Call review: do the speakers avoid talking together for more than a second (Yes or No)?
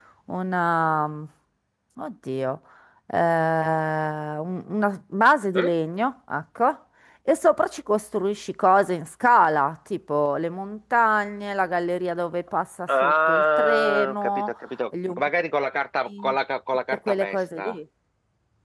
No